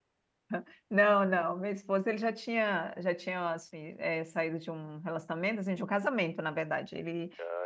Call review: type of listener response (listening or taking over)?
listening